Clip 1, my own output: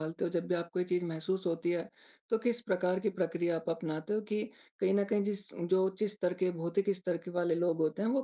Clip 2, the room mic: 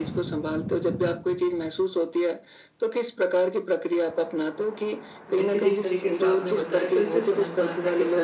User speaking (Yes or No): Yes